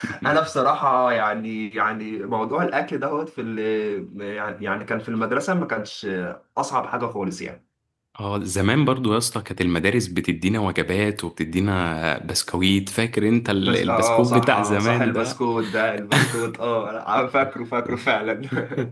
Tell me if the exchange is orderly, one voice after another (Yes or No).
No